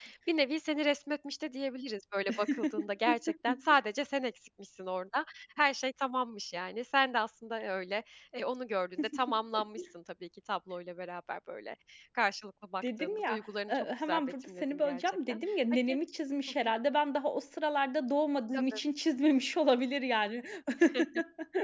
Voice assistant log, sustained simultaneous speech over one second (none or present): present